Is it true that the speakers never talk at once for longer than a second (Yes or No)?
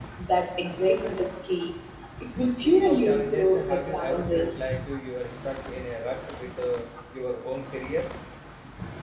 No